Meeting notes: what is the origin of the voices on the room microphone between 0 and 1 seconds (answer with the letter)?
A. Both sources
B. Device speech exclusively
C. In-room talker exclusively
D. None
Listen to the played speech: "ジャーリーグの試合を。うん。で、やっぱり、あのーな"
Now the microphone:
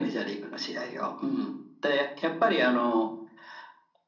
B